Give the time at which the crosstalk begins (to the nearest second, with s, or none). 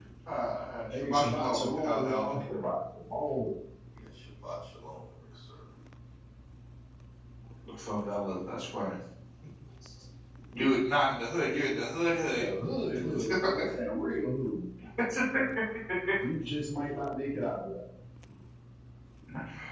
1 s